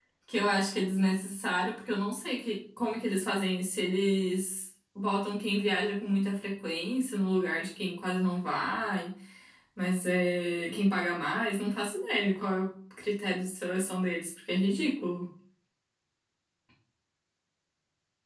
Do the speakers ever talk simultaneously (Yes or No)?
No